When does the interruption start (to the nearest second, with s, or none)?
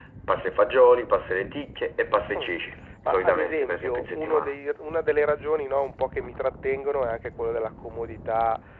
3 s